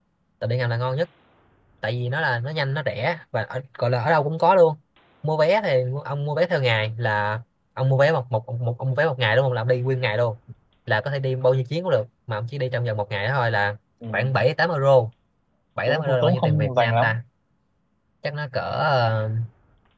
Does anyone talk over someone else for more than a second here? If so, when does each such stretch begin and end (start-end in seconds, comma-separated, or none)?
15.9-17.1